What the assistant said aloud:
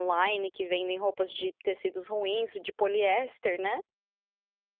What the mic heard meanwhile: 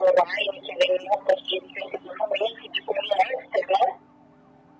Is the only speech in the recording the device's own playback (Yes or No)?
Yes